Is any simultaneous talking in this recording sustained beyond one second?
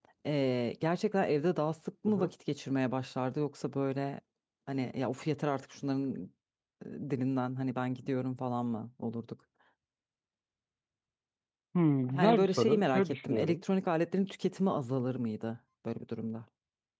Yes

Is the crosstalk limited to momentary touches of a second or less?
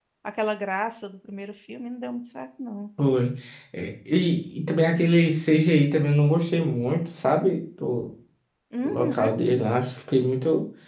Yes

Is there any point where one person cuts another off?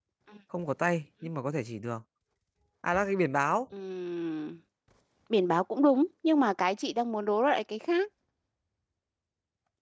No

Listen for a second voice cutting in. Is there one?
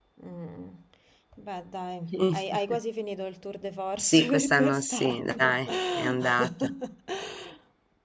Yes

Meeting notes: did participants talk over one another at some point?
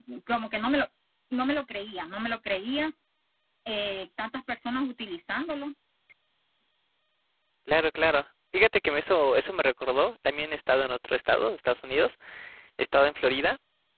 No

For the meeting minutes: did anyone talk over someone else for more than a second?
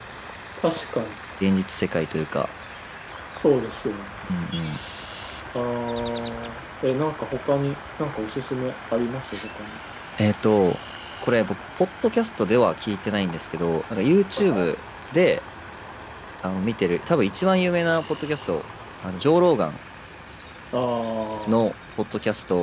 No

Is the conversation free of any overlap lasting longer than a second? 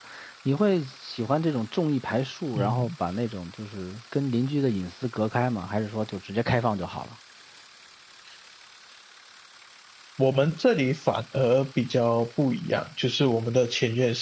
Yes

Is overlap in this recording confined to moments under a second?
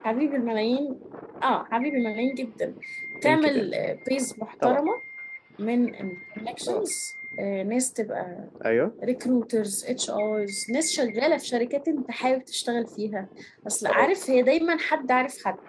Yes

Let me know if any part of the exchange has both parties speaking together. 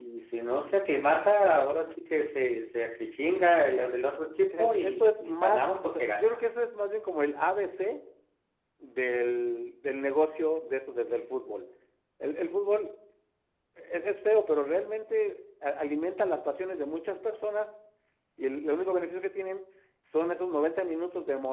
Yes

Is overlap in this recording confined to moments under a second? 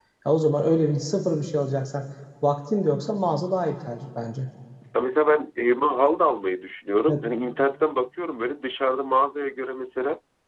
Yes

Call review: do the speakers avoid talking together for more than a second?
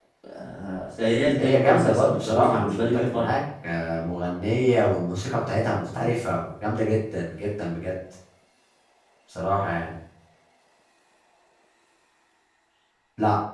No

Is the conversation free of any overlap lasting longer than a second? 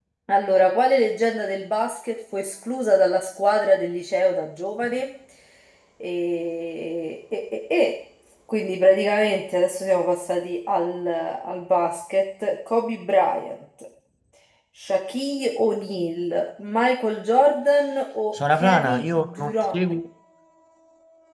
No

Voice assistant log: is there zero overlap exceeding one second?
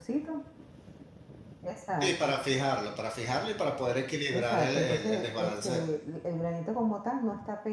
No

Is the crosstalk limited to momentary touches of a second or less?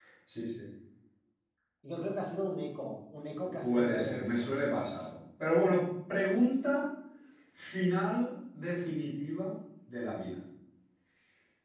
No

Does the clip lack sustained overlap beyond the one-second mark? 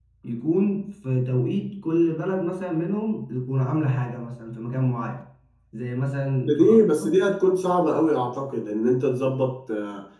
Yes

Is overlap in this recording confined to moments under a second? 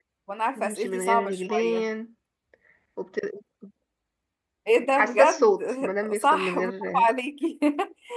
No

